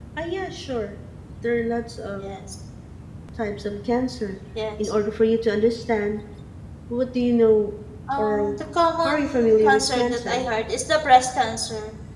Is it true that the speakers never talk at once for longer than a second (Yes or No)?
No